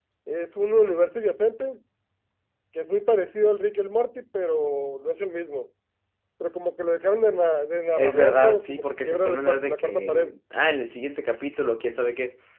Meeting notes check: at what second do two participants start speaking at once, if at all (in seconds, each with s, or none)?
8.0 s